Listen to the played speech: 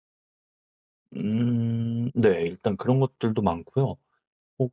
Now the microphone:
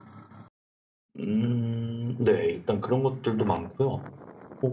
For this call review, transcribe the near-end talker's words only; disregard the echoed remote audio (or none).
none